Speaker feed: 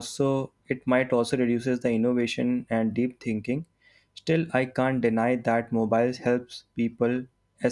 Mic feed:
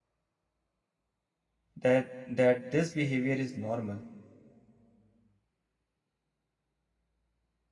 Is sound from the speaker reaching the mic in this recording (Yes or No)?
No